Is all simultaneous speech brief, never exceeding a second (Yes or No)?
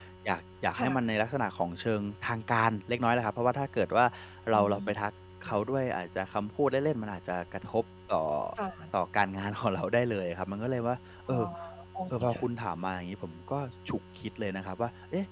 Yes